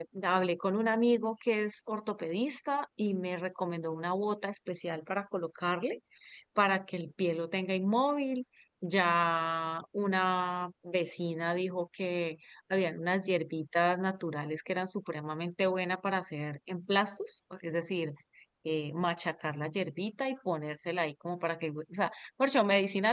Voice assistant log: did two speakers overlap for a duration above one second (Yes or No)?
No